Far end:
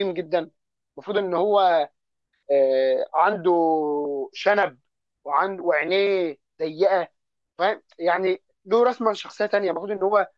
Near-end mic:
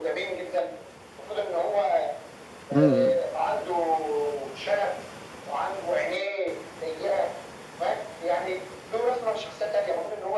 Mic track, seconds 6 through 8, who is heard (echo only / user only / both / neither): echo only